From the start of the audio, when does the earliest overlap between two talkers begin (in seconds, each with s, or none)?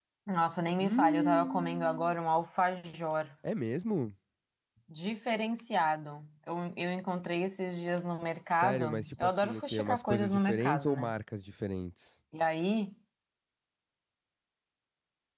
0.8 s